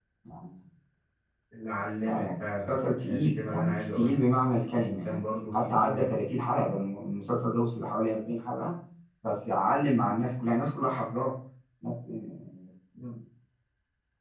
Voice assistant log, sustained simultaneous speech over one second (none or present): present